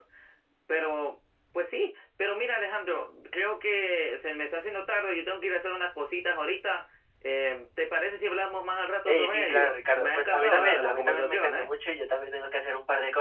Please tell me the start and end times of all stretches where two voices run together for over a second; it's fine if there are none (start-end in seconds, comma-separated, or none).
9.1-11.7